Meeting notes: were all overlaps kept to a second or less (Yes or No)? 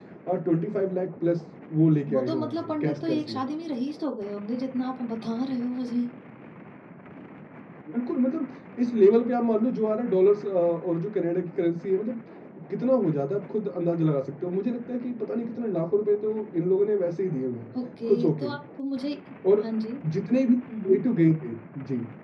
No